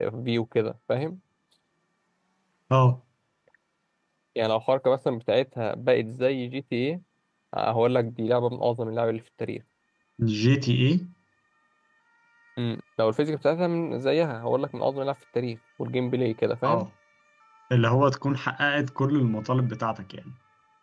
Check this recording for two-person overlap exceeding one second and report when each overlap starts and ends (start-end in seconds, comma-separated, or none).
none